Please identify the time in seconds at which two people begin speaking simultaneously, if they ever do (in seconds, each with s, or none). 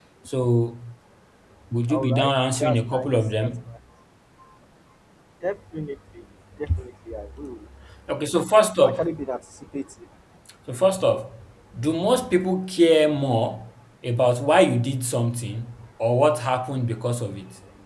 1.9 s